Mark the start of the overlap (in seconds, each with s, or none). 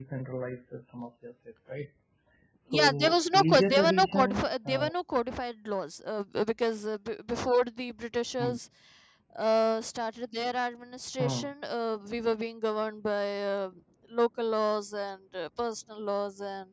2.7 s